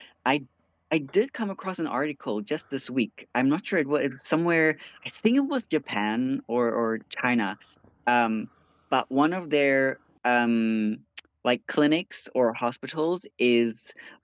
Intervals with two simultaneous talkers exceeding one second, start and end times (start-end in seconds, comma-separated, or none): none